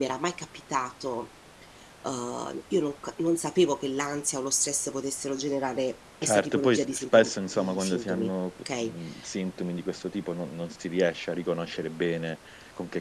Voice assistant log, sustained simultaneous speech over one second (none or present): present